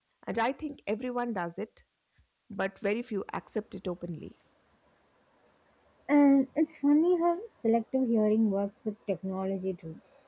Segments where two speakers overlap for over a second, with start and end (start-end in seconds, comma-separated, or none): none